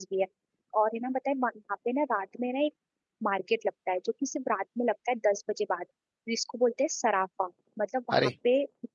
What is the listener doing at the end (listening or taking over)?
listening